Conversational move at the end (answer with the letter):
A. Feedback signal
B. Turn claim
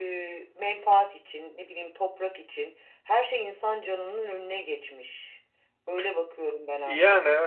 B